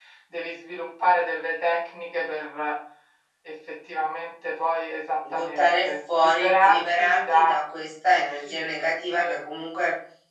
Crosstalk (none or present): present